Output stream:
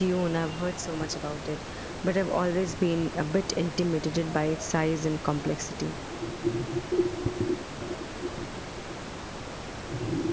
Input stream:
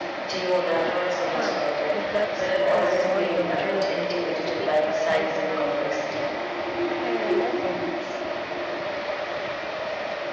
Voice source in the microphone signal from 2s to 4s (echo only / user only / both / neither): both